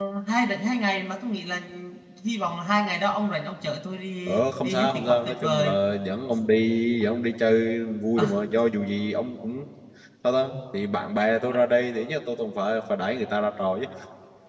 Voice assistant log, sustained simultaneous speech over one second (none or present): present